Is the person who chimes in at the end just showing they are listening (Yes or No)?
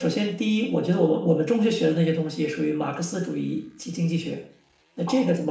Yes